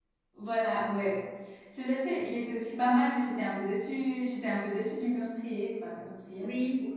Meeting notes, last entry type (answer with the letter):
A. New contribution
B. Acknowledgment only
A